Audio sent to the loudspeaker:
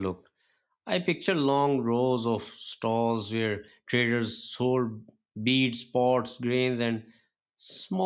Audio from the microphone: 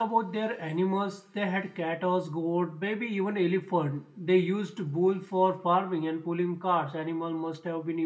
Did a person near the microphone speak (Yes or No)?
Yes